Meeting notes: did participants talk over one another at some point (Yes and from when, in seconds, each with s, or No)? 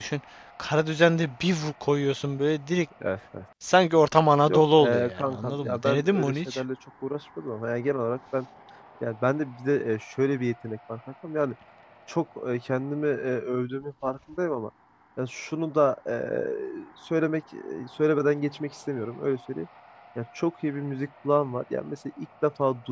Yes, from 4.5 s